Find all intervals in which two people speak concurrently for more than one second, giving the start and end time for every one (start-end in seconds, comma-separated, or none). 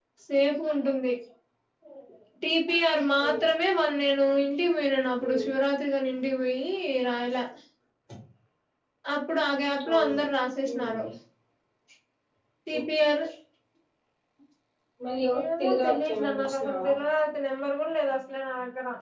15.6-16.9